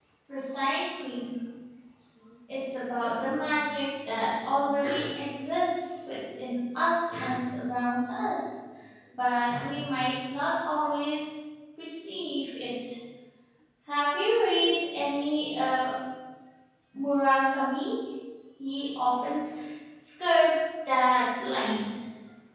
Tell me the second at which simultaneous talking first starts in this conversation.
none

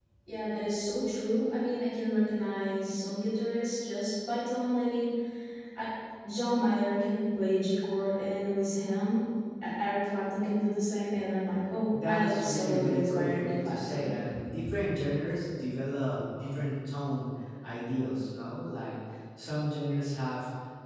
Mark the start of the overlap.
11.9 s

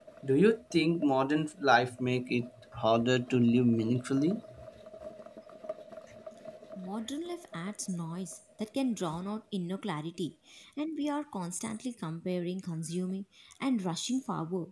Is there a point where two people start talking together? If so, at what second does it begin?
none

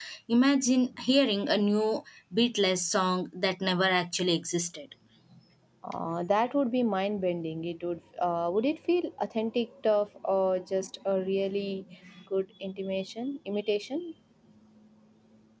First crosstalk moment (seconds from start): none

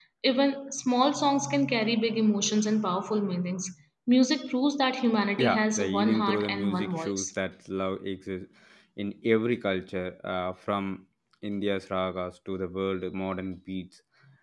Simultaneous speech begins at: 5.4 s

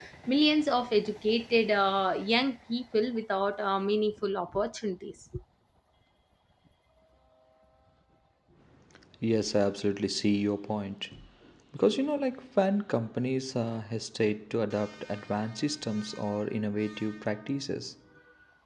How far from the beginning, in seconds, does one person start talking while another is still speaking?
none

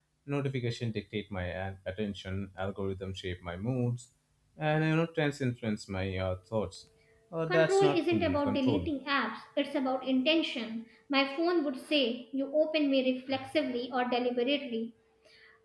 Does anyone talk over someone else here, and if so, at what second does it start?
7.5 s

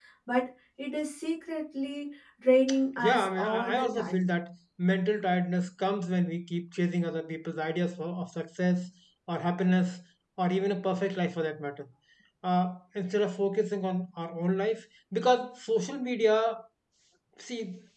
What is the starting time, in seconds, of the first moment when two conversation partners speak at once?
3.0 s

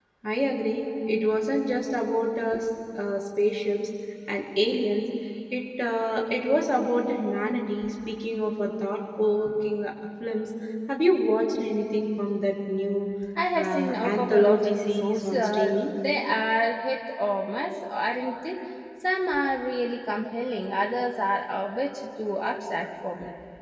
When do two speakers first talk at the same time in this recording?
13.6 s

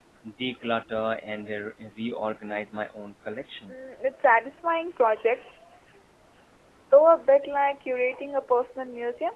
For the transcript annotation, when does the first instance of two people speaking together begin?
none

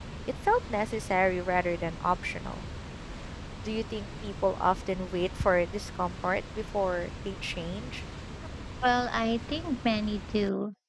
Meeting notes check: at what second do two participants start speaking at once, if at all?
none

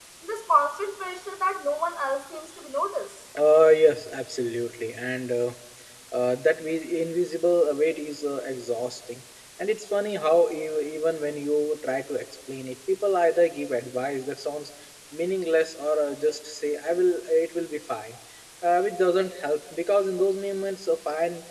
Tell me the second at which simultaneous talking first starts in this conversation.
none

